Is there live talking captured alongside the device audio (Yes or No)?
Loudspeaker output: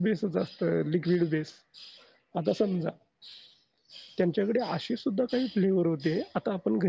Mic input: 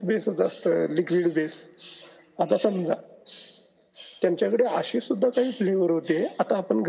No